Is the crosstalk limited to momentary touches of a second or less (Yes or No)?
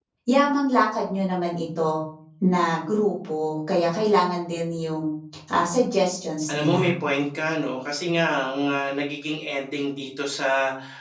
Yes